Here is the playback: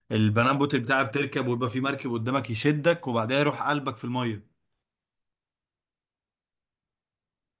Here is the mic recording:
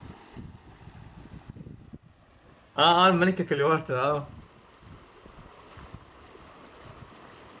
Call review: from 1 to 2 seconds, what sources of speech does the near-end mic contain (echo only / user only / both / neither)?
neither